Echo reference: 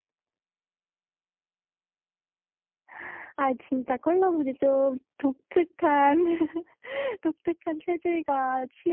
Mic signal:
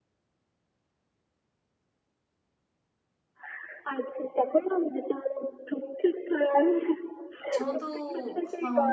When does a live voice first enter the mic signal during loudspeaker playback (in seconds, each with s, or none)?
7.5 s